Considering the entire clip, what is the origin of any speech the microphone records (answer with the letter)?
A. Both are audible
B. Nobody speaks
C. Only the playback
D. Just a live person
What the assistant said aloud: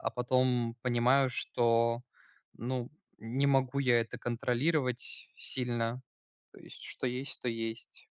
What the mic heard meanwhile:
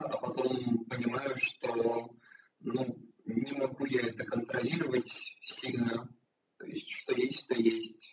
C